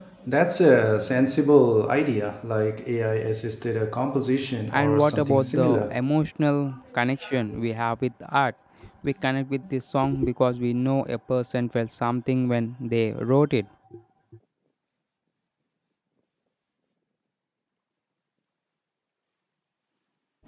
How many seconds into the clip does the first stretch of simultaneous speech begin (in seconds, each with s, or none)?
4.7 s